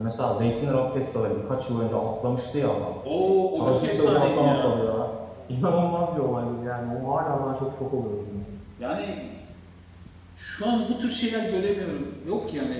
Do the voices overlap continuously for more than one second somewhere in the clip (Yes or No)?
Yes